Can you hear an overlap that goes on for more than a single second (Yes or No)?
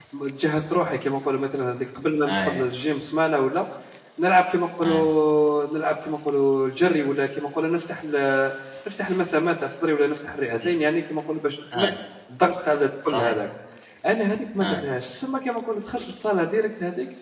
No